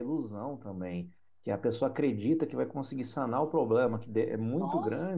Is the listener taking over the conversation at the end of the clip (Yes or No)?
No